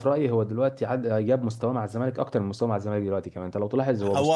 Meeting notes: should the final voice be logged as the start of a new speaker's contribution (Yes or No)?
Yes